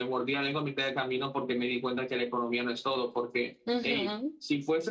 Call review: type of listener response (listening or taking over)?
listening